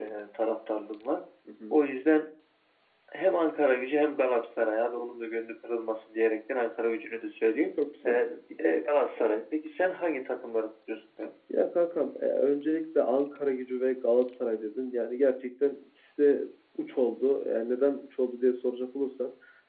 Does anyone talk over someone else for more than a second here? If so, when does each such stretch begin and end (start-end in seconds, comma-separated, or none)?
none